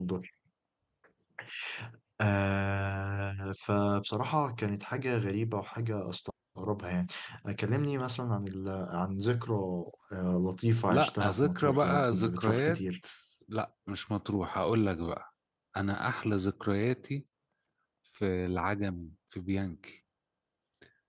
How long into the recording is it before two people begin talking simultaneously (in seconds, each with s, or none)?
10.9 s